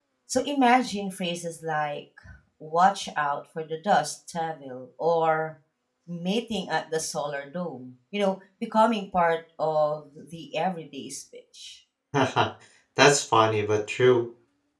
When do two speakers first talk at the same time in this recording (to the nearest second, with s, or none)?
none